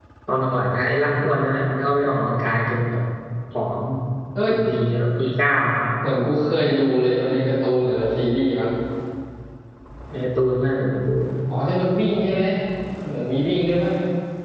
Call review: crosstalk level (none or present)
none